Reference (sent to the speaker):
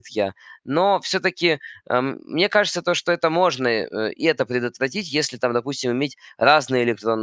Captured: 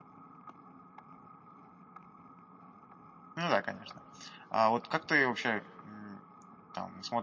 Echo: none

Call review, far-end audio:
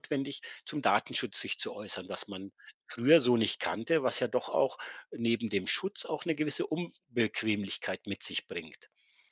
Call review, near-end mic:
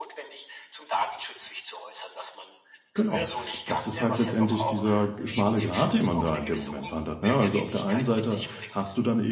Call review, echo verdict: present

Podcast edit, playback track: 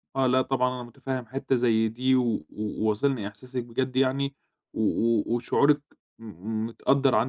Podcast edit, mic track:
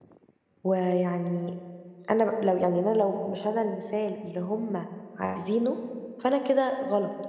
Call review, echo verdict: none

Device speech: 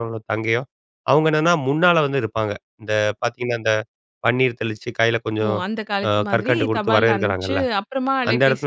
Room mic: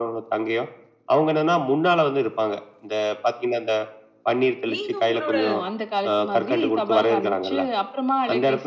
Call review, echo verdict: present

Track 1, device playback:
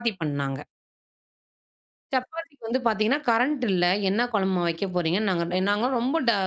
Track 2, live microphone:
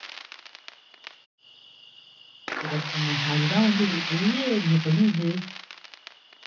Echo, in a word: none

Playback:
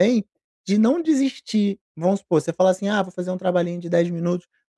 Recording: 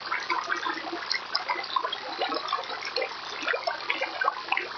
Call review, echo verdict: none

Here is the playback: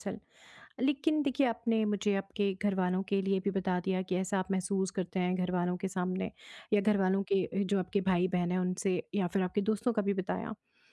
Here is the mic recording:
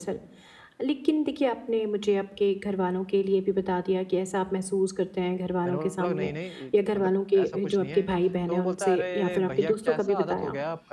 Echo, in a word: present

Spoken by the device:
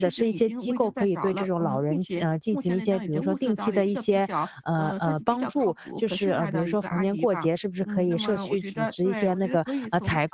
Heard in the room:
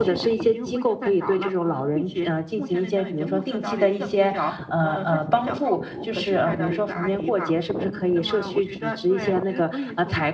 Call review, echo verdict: present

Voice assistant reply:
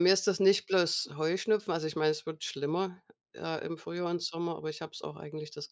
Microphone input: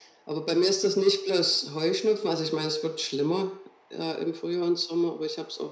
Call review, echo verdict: present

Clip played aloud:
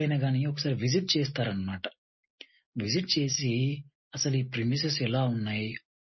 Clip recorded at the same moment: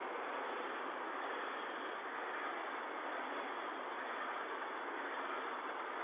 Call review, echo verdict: none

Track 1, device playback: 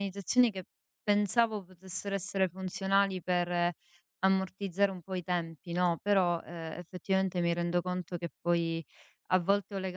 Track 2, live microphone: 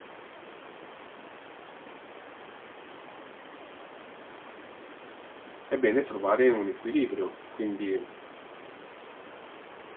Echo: none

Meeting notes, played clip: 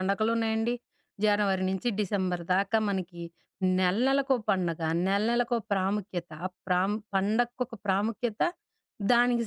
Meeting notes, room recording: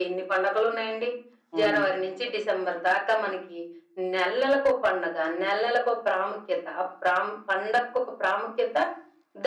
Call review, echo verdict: present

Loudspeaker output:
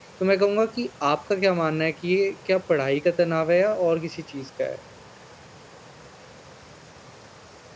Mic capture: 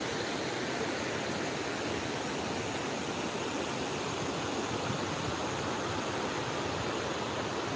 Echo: none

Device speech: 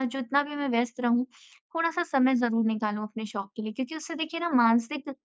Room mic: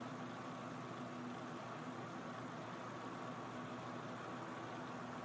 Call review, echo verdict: none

